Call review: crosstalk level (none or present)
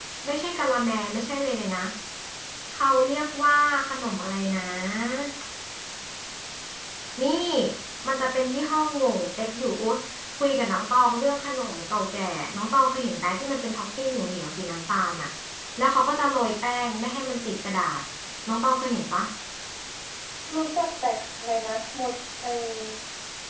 none